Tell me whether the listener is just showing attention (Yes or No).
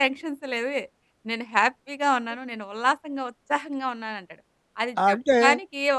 Yes